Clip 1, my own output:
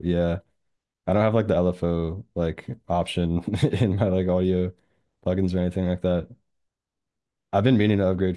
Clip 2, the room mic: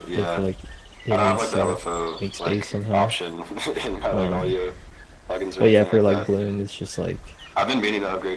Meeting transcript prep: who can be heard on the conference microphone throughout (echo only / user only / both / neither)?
both